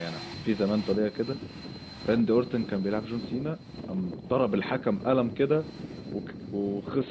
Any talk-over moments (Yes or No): No